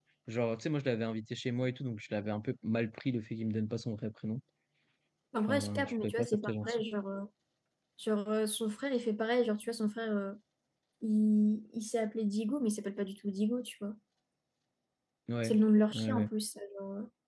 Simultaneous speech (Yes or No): Yes